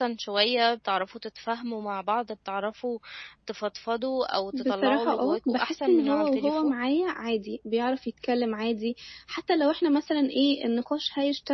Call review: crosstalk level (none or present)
present